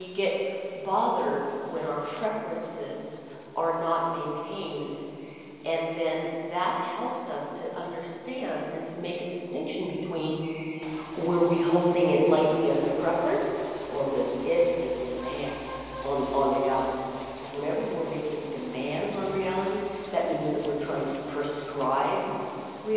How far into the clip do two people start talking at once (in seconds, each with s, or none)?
none